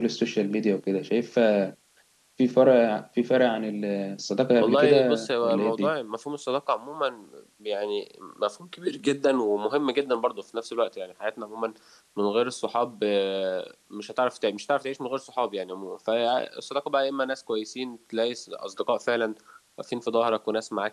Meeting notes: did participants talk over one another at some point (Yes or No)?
Yes